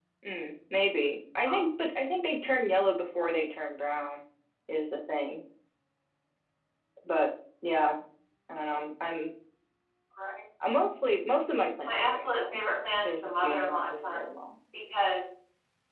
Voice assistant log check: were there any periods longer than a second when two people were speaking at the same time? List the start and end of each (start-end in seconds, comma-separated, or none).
11.9-14.3